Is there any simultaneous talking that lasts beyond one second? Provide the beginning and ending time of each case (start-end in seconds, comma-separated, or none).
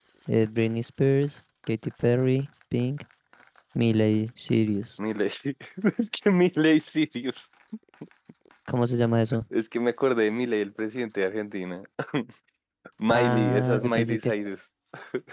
13.1-14.3